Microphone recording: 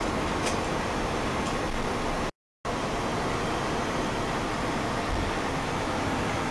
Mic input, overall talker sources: neither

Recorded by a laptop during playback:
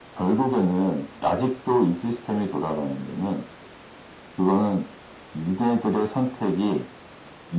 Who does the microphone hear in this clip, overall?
echo only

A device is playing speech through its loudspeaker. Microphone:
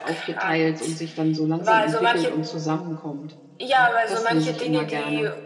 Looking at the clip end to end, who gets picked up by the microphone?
both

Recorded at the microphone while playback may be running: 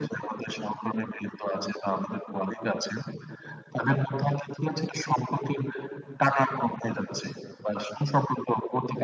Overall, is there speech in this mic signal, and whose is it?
echo only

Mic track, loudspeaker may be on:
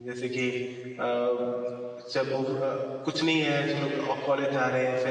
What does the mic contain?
user only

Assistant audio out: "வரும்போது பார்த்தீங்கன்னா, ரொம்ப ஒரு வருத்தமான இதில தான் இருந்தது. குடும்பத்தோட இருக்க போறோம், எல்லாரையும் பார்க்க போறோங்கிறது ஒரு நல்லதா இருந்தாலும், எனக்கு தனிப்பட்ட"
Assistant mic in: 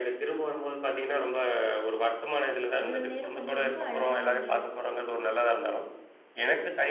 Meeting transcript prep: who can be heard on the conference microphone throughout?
both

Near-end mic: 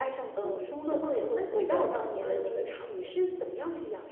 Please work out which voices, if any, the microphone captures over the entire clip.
echo only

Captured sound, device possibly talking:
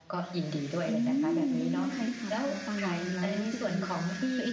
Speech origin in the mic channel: both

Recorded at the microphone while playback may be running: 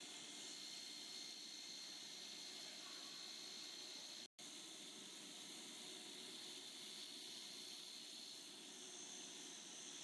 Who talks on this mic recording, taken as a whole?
neither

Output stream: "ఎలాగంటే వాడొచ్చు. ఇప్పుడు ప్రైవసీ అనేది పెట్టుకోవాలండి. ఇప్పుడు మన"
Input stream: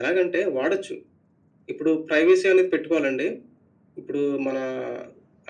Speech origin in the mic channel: echo only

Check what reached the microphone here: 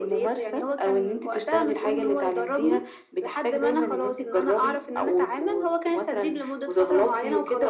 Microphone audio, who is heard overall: echo only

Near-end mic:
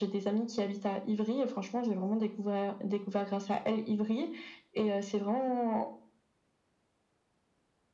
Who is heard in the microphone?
echo only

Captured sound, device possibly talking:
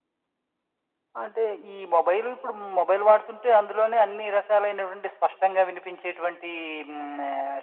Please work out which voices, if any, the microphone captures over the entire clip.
echo only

